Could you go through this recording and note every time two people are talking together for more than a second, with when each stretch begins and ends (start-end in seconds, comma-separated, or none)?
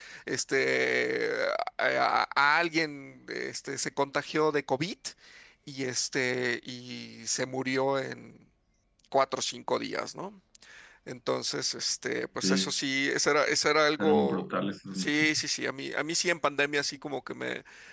none